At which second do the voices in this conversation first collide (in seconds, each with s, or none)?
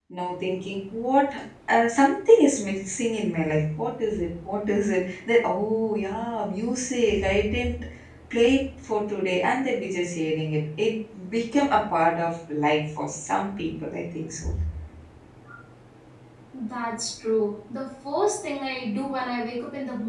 none